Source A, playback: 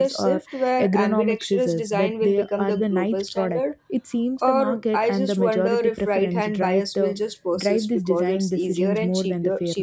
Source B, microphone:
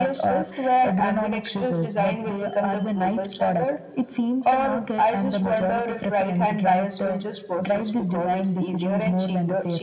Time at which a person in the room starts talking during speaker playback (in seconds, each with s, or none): none